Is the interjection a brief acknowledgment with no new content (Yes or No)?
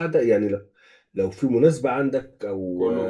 Yes